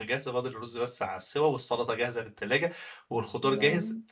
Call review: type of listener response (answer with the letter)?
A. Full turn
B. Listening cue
B